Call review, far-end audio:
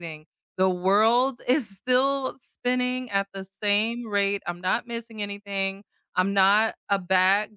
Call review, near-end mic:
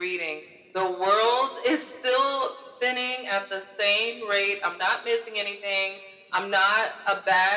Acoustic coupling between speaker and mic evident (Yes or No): Yes